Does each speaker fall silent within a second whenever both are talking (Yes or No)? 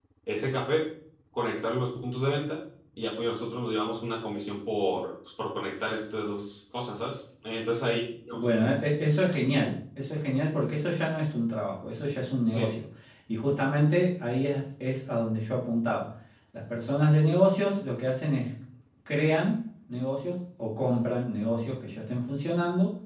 Yes